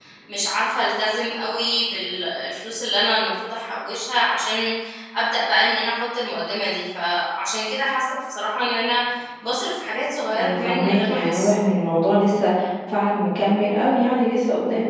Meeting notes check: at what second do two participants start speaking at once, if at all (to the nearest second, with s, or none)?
10 s